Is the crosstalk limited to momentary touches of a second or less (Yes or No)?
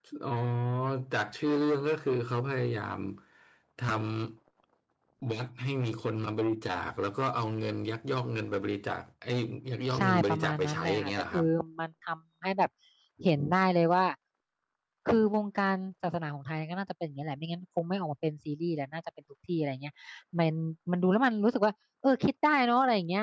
No